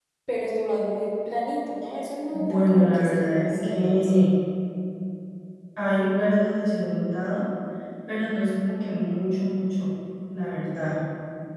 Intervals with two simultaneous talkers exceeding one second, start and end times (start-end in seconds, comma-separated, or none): 2.3-4.3